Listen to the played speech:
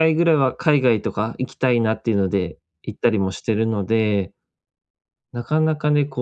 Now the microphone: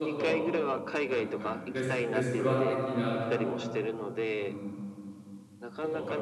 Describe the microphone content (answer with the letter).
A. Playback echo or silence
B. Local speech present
B